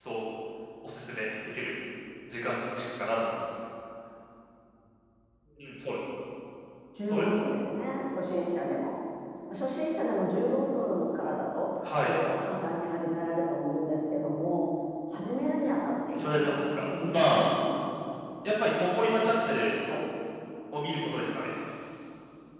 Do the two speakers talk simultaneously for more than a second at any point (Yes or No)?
Yes